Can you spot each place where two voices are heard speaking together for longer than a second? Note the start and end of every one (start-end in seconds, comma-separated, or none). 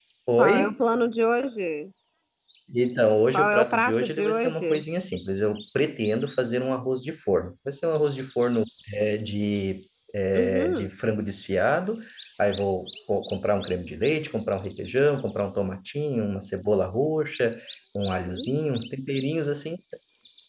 3.3-4.8